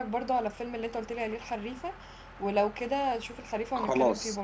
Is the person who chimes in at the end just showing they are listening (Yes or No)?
No